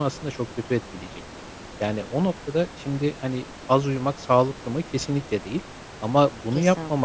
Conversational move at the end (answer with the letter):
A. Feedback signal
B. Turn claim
A